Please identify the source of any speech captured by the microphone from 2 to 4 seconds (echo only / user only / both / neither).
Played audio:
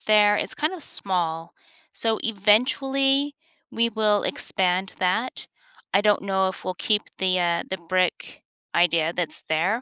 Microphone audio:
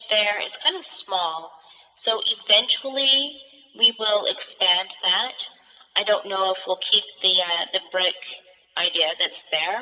echo only